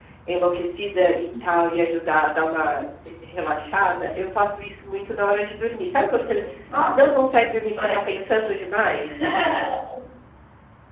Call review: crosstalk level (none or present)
present